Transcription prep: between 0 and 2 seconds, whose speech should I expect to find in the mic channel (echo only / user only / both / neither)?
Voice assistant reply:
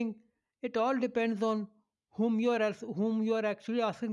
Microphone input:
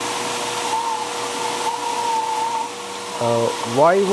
neither